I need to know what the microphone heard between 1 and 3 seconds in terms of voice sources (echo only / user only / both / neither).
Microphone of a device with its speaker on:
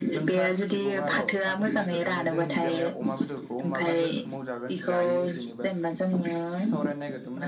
both